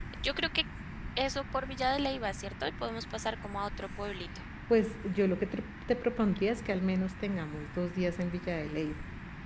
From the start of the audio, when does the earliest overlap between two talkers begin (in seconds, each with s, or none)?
none